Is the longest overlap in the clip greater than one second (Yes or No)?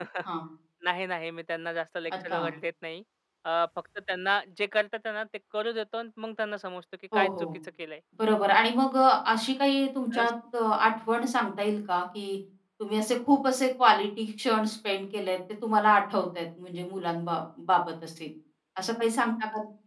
No